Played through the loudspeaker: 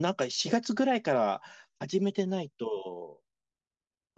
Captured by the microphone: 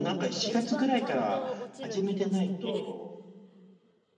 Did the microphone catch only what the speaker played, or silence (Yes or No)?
No